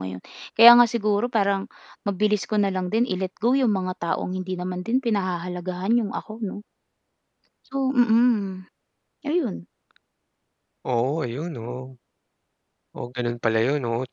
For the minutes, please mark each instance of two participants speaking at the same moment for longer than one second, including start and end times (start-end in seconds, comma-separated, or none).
none